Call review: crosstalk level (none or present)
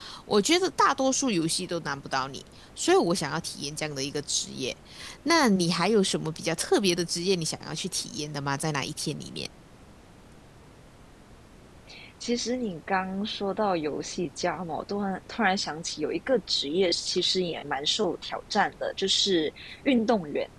none